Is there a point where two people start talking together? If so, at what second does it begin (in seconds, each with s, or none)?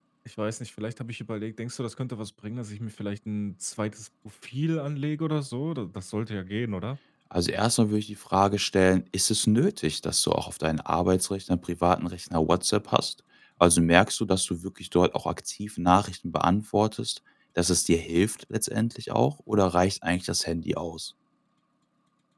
none